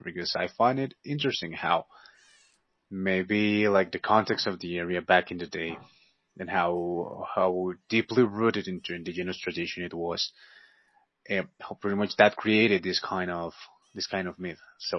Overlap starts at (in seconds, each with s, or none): none